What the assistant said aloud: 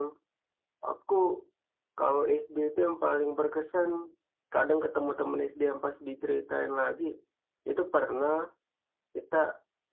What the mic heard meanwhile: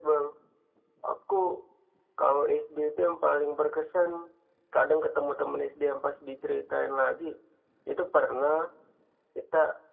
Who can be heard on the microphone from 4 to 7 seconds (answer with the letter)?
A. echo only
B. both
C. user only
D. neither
A